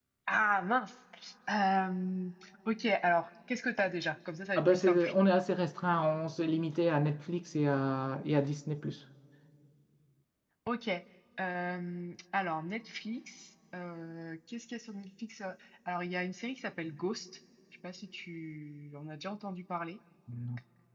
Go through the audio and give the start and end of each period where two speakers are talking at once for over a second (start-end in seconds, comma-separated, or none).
none